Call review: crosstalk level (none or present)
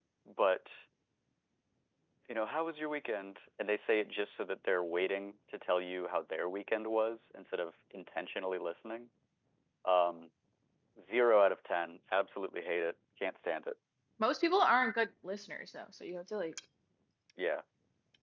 none